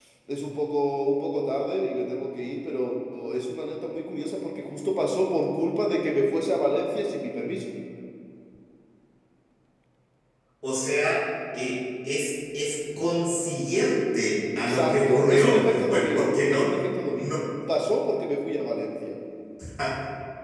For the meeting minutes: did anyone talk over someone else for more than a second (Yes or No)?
Yes